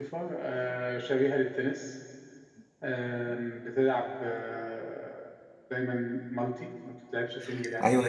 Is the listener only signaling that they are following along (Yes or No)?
No